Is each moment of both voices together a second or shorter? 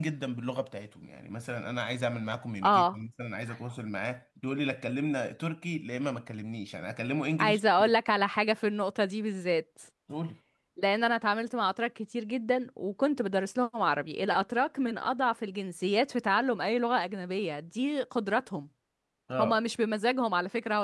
Yes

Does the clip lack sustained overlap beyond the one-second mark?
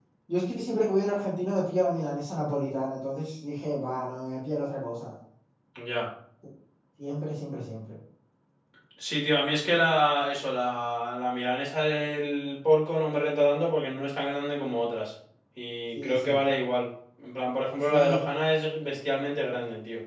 Yes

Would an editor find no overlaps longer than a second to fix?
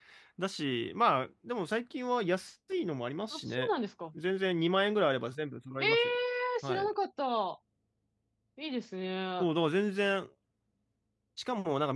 Yes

